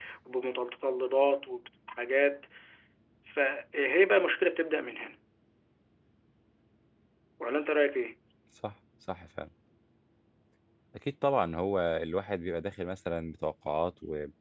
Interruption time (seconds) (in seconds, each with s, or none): none